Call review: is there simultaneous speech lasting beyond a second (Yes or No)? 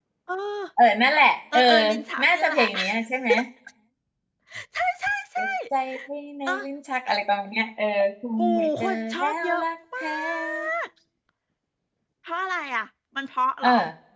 Yes